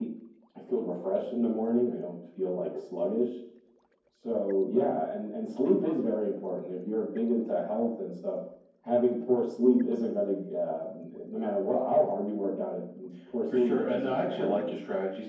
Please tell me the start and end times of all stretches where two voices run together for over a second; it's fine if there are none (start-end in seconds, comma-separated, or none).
13.5-14.7